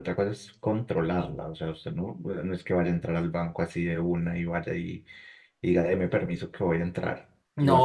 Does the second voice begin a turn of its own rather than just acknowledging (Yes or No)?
Yes